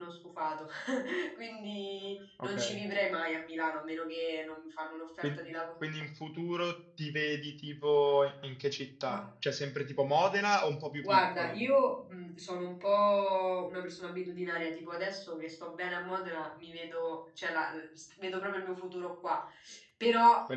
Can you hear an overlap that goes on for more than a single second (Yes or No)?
No